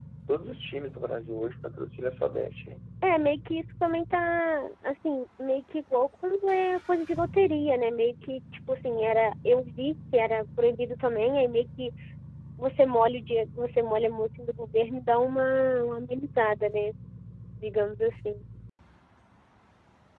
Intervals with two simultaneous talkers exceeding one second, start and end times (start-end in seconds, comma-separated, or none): none